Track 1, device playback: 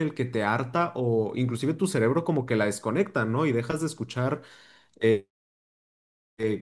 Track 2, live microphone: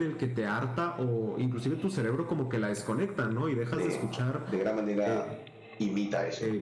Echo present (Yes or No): Yes